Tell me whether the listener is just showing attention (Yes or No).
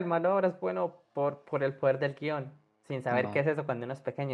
Yes